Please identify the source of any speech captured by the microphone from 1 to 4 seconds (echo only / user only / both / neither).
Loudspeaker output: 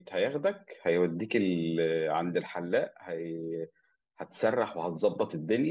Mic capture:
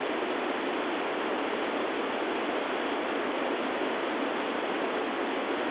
neither